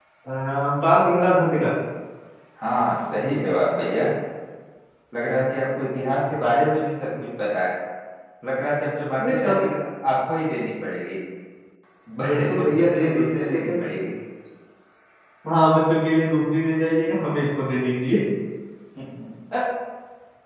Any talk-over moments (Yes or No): Yes